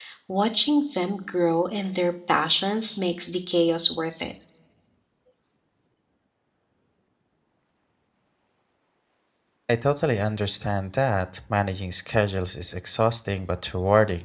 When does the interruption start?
none

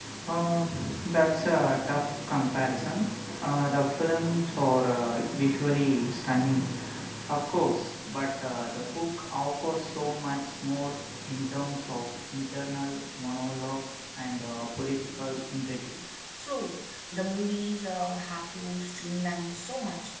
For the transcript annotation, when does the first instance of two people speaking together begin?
none

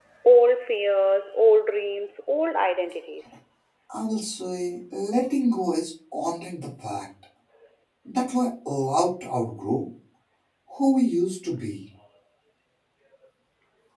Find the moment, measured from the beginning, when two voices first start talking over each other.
none

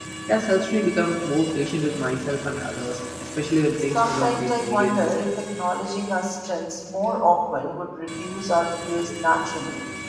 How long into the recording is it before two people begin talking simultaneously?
4 s

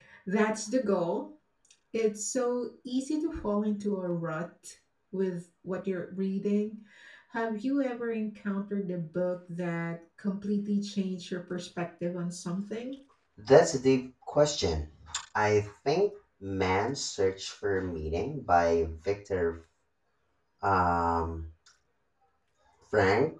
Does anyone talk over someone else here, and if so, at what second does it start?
none

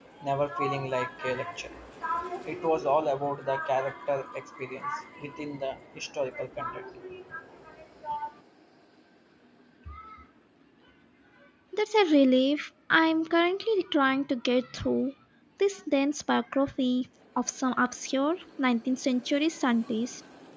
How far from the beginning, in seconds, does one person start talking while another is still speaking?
none

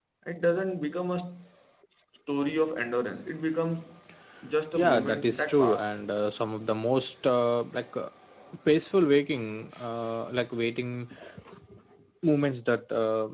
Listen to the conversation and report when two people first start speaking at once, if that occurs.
5 s

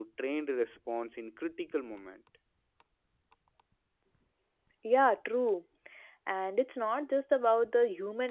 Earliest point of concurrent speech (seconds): none

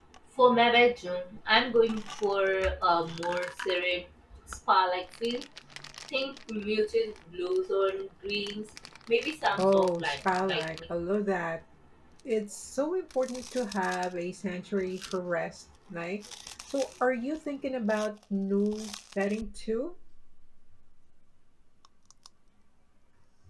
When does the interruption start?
10 s

